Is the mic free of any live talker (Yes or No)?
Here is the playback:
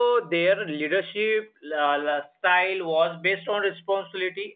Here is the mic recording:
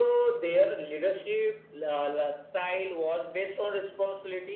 Yes